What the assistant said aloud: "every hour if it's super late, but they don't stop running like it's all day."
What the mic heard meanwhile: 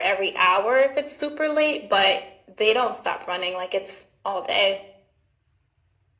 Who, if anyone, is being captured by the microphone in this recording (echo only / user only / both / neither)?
echo only